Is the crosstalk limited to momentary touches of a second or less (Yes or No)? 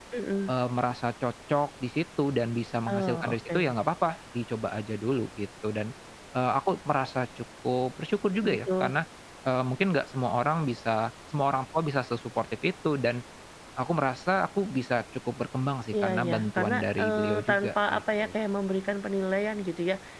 No